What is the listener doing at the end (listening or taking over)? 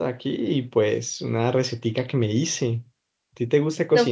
taking over